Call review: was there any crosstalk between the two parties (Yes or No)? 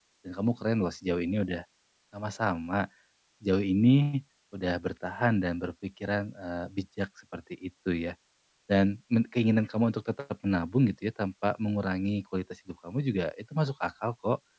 No